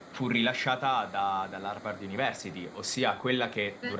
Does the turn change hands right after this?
No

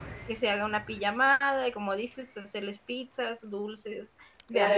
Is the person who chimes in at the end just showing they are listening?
No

